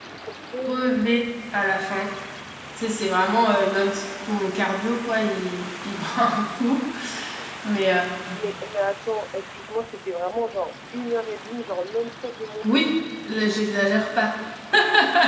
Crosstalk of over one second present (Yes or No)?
No